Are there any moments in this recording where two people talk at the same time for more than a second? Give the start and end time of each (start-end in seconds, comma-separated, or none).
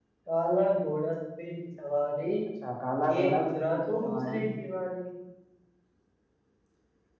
3.2-4.4